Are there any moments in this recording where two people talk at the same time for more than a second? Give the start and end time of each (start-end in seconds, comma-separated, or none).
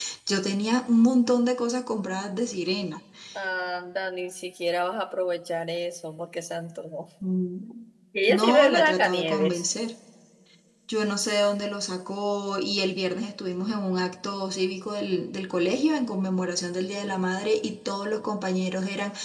8.3-9.7